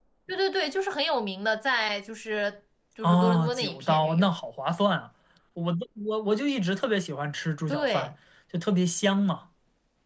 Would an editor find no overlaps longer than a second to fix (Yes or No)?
No